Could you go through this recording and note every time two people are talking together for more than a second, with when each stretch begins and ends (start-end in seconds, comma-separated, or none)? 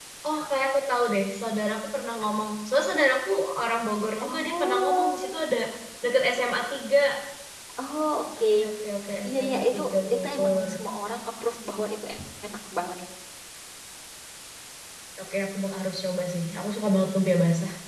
4.2-5.4, 9.2-10.7